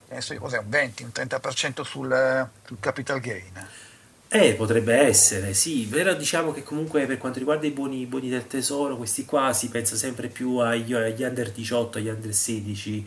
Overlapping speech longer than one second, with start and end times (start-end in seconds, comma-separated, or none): none